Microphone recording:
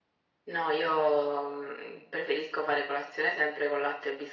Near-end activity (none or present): none